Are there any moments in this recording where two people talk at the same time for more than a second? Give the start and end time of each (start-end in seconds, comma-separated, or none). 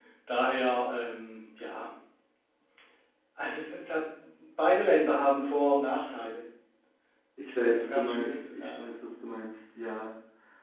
7.5-8.9